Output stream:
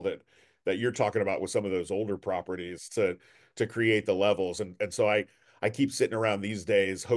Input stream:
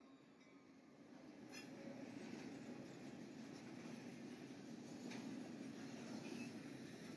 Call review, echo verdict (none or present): none